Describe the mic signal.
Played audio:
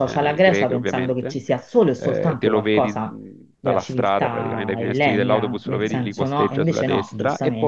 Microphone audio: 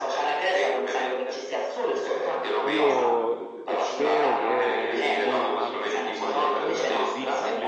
both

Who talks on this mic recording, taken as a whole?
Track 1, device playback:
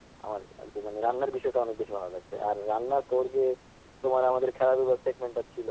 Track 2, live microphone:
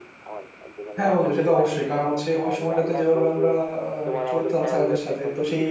both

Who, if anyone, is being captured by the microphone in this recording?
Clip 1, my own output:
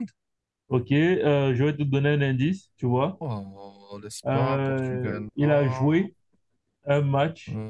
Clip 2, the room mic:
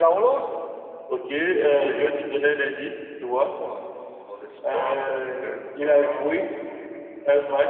echo only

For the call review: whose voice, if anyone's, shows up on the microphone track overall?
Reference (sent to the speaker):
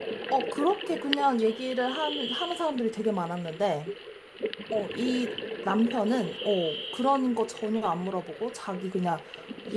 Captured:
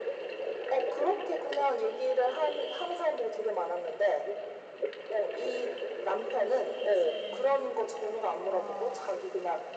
both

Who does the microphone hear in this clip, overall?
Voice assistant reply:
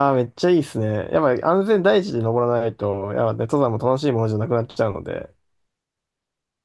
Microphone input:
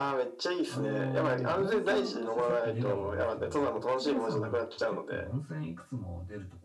both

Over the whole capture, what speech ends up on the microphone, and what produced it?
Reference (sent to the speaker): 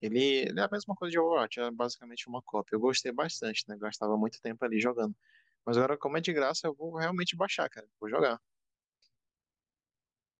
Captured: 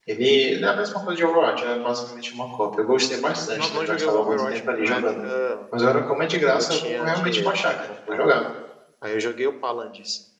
both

